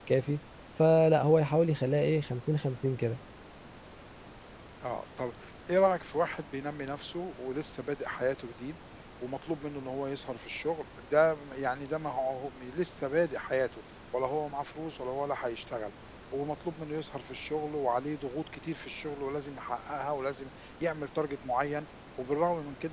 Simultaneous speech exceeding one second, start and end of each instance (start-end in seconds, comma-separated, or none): none